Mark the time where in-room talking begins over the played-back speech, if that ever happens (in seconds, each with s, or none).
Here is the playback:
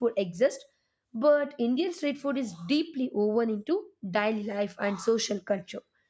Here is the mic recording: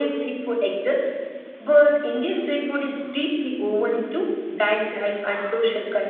none